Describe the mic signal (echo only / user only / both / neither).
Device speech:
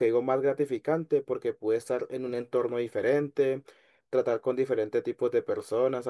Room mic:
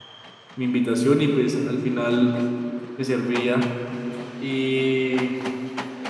user only